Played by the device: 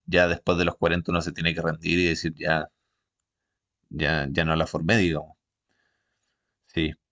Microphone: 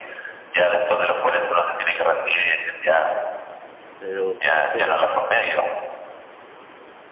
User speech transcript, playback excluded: Pero ¿por qué lo...?

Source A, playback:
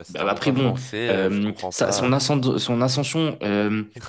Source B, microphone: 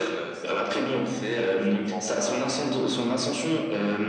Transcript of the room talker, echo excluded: none

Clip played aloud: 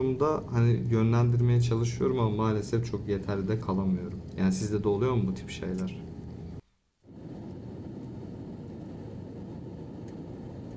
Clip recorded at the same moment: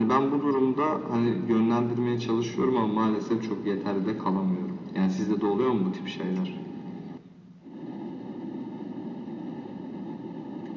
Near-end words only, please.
none

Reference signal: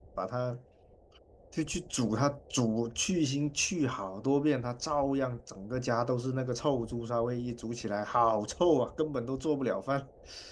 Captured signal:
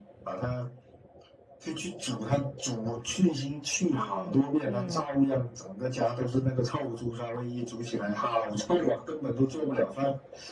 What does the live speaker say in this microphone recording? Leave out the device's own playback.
嗯嗯，

